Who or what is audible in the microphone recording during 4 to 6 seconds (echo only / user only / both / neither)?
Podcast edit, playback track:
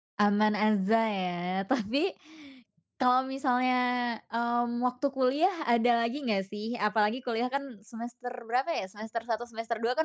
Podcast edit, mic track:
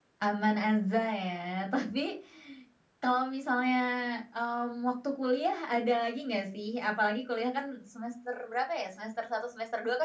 echo only